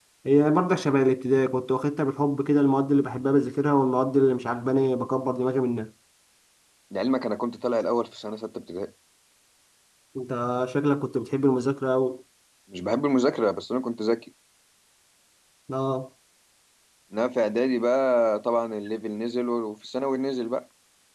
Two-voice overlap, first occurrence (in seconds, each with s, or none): none